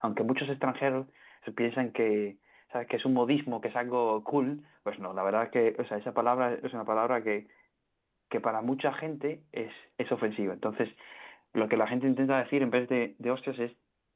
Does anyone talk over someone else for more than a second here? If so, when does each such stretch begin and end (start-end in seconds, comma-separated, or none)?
none